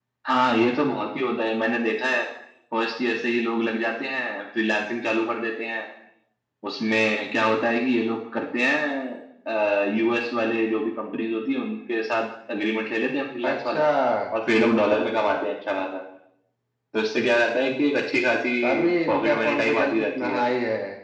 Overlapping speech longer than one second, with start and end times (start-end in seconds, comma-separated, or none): 18.6-20.4